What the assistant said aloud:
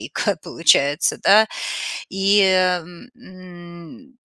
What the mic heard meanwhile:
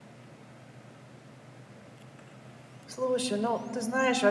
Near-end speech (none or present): present